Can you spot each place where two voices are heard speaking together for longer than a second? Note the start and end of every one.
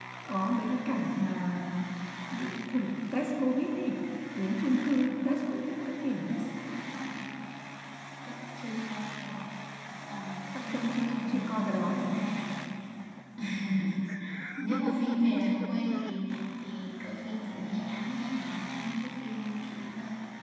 10.6-12.1

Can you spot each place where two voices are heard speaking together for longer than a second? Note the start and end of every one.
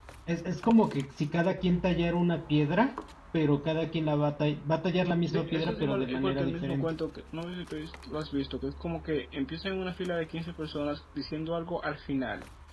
5.3-6.8

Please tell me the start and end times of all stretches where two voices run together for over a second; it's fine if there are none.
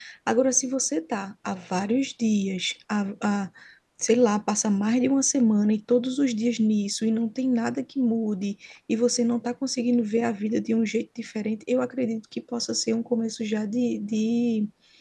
none

